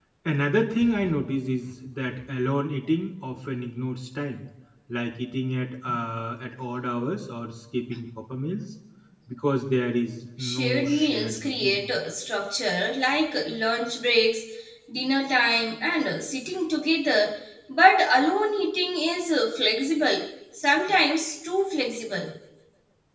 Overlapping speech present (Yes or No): Yes